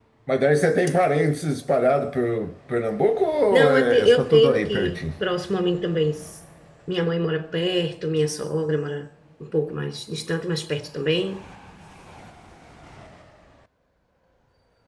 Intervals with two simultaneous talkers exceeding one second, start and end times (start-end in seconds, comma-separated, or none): 3.5-5.0